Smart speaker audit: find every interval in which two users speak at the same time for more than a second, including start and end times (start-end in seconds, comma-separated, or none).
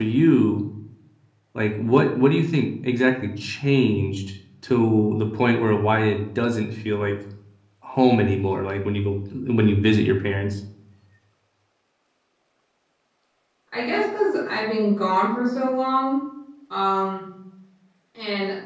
none